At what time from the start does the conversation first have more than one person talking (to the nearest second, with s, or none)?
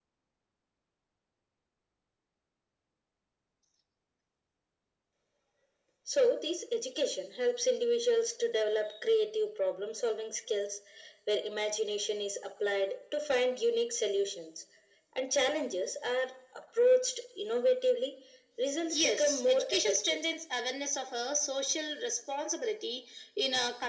19 s